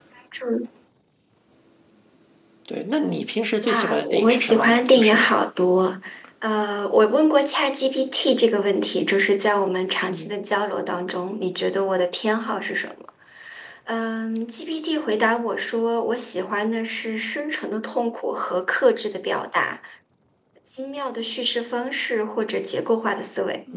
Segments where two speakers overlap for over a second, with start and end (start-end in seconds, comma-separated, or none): 3.6-5.3